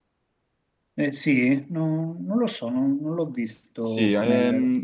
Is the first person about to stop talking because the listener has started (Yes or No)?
Yes